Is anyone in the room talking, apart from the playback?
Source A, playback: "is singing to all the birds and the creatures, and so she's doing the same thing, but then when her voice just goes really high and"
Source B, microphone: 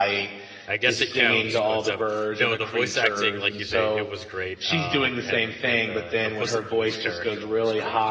Yes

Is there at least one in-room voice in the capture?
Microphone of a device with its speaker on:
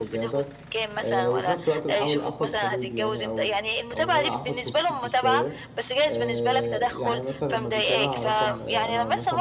Yes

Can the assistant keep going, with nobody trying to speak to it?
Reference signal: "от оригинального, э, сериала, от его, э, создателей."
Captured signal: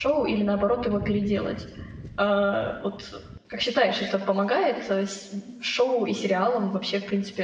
No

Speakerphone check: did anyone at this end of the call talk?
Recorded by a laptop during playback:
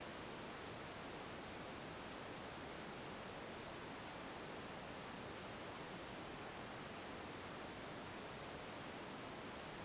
No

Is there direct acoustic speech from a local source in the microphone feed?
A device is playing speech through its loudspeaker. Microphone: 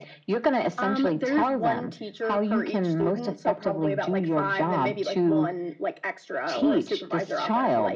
No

